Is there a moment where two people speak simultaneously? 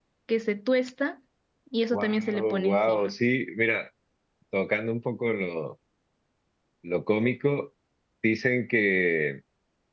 Yes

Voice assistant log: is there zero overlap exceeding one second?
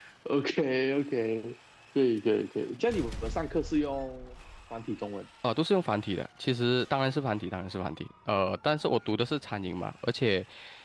Yes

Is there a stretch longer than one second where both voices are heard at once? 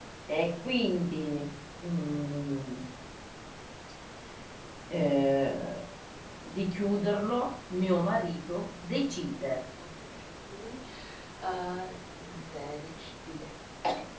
No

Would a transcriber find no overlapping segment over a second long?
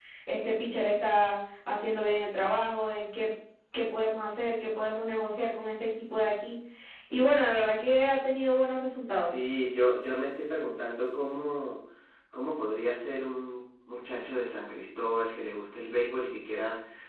Yes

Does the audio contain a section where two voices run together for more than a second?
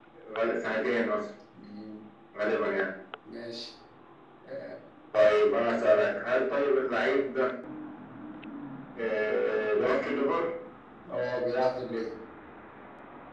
No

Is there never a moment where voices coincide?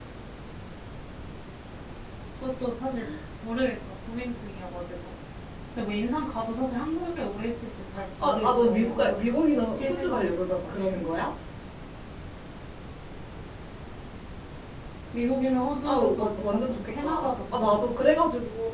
No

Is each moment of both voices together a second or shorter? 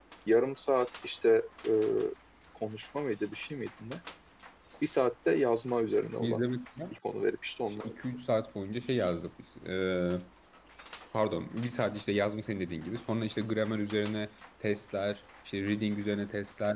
Yes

